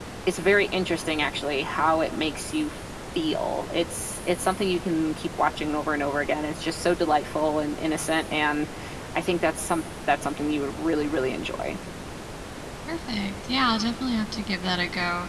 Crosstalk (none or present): none